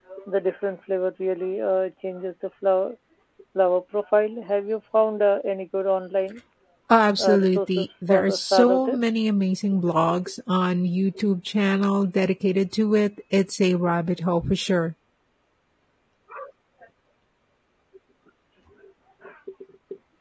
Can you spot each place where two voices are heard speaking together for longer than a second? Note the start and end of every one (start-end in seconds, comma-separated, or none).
7.2-9.2